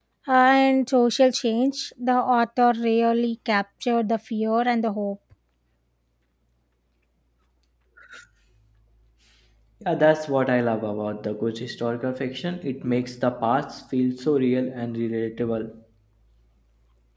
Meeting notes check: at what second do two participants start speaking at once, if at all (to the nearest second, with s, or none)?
none